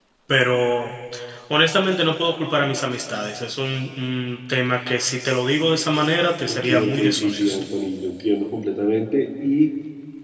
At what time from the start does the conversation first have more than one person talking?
6 s

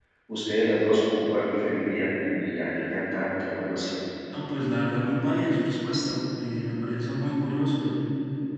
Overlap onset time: none

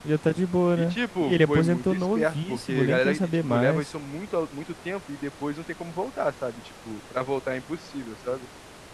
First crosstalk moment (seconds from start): 1 s

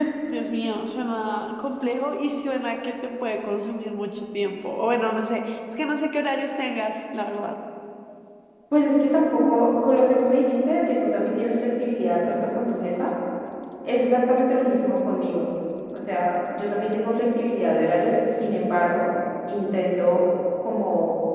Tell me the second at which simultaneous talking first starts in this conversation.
none

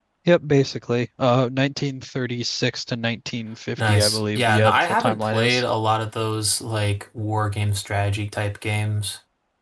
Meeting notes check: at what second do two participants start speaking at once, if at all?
4 s

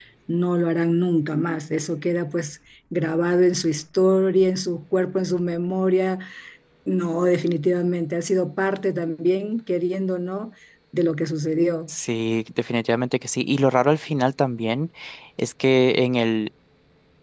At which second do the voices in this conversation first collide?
none

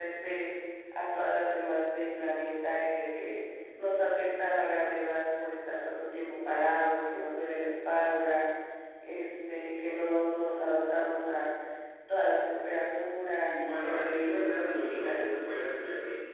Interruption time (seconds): 13 s

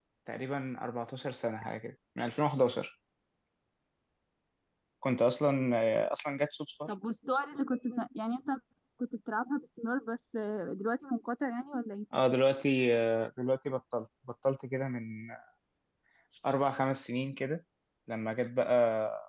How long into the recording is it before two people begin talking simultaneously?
none

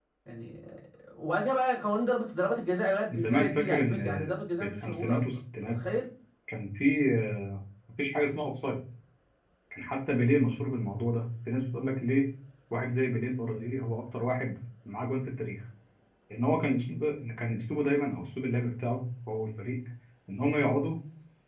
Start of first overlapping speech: 3 s

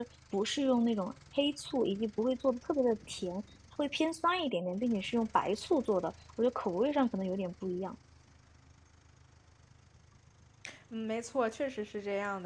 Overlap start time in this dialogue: none

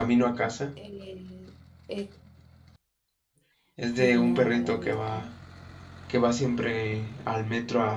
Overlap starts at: 4 s

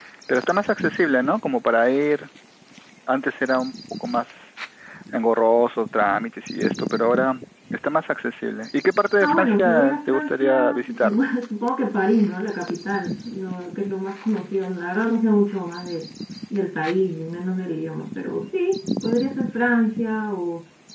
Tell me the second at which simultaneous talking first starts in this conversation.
9 s

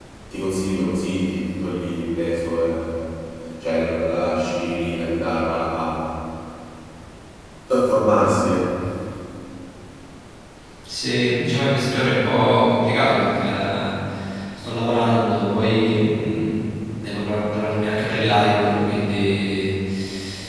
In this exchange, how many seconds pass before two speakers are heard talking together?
none

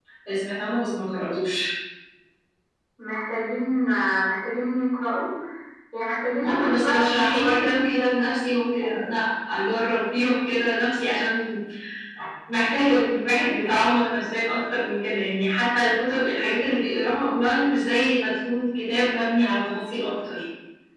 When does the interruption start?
6 s

